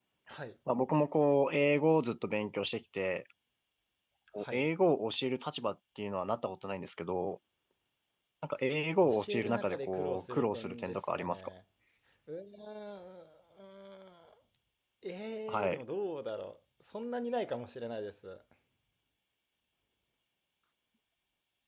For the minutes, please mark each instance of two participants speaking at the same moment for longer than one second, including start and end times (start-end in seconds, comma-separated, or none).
9.0-11.5